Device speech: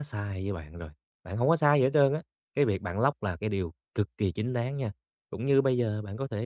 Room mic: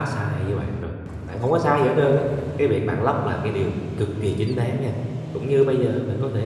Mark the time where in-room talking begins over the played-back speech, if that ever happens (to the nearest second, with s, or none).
none